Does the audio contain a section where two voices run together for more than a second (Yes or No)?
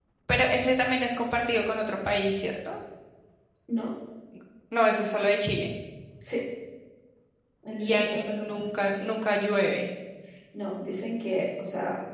Yes